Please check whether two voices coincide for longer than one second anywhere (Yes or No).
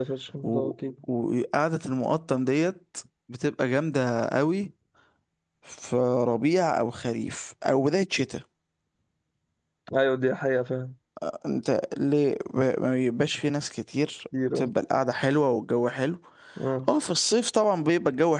No